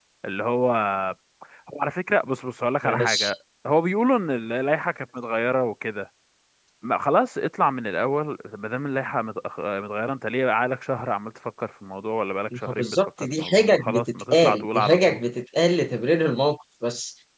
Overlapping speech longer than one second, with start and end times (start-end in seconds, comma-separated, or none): 12.7-15.2